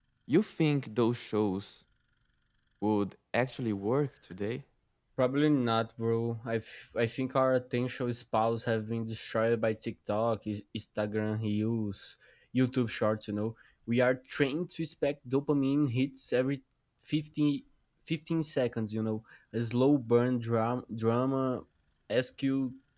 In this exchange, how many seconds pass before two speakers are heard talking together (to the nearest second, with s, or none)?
none